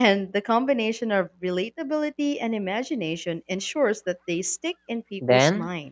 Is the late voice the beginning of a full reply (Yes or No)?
Yes